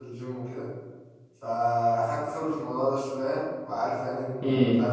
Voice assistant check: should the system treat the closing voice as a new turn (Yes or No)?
No